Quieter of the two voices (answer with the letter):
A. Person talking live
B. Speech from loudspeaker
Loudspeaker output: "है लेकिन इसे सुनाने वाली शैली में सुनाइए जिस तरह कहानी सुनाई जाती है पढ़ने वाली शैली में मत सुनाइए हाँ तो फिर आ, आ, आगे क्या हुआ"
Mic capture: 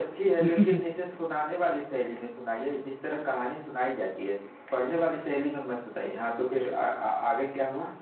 B